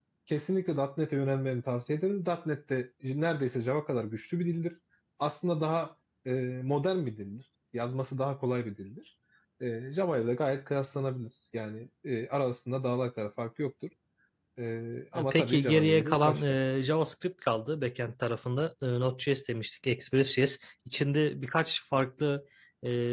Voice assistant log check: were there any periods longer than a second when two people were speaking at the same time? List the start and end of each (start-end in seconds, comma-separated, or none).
15.2-16.4